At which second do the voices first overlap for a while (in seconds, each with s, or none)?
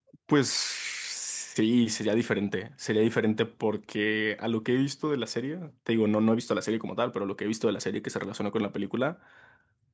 none